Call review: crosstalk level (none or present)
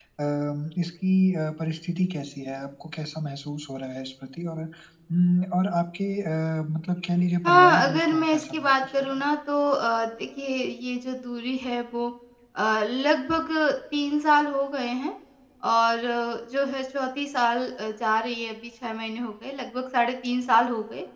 present